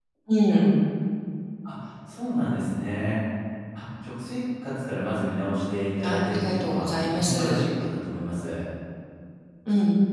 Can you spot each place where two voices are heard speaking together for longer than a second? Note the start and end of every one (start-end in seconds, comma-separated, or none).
6.0-7.7